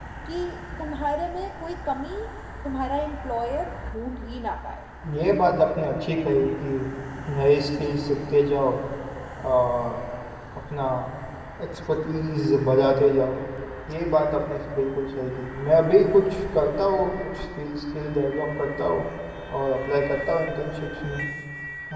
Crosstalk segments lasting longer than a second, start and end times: none

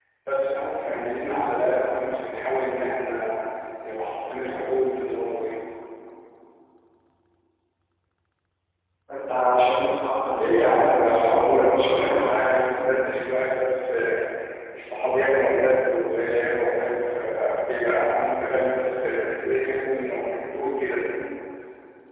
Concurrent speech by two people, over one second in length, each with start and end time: 10.3-12.3

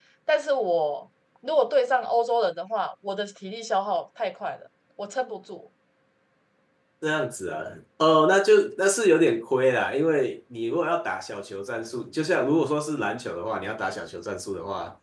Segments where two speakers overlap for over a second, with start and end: none

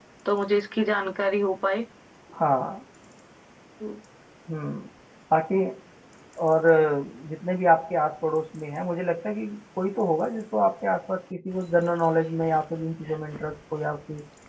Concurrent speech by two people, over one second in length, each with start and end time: none

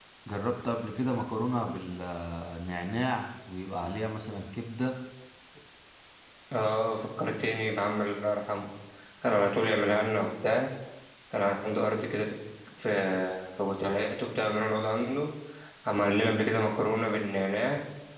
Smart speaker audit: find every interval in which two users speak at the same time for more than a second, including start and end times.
none

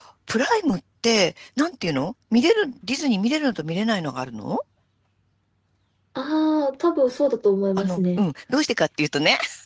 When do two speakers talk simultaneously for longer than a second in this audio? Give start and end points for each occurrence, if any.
none

